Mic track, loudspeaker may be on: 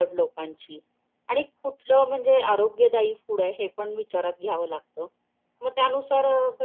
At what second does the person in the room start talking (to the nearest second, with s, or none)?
none